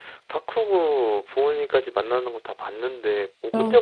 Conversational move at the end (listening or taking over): listening